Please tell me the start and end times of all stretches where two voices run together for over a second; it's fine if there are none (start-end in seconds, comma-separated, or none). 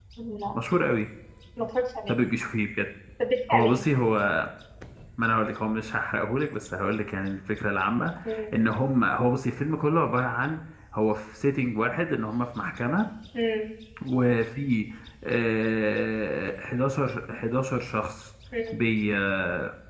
none